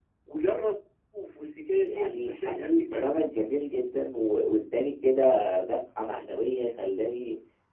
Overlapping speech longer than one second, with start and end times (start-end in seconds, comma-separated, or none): 1.9-3.2